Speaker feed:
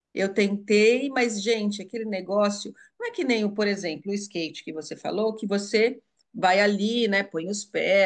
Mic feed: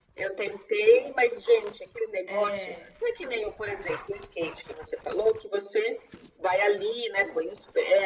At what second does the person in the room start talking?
2.3 s

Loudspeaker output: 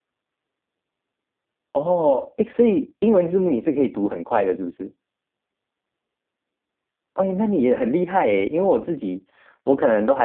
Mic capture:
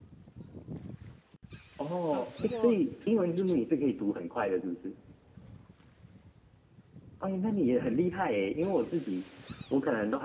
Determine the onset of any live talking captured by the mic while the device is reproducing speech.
2.1 s

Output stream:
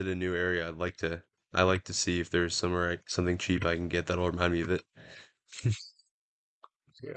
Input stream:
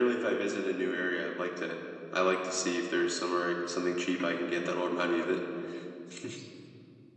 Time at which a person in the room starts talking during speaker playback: none

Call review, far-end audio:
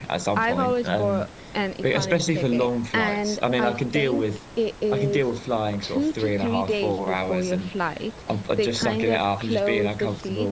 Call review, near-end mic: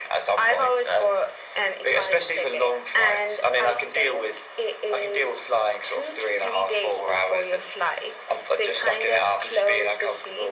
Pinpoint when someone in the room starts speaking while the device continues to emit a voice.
none

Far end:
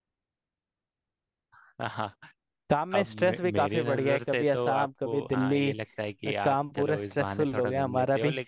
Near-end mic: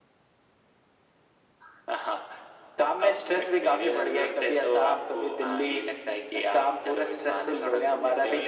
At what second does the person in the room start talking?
none

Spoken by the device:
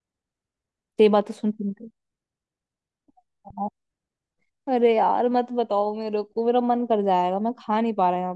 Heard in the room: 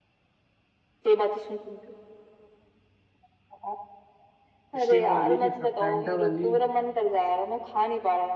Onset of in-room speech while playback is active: 4.8 s

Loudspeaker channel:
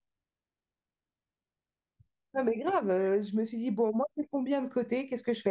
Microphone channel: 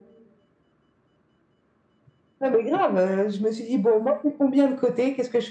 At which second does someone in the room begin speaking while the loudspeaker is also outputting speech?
none

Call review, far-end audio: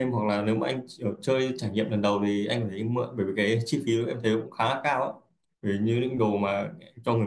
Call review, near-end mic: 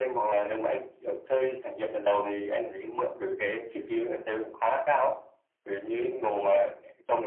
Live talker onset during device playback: none

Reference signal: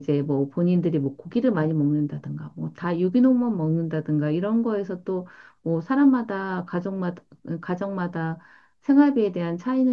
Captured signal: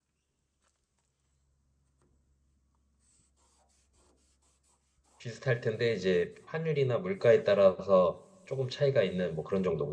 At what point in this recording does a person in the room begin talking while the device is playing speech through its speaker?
5.2 s

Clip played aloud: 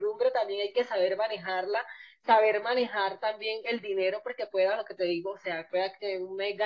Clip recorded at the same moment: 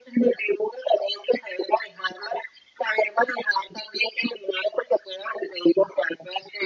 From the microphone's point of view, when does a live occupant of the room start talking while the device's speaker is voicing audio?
none

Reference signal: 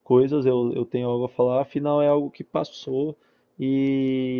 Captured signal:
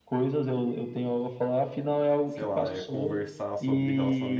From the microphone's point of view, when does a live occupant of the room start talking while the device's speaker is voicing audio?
2.2 s

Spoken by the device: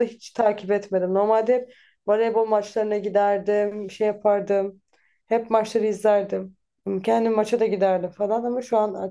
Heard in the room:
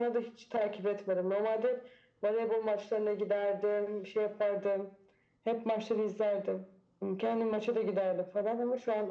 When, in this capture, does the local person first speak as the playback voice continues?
none

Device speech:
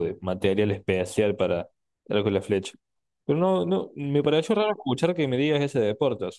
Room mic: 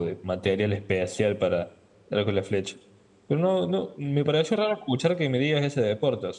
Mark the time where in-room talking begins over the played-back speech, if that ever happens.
none

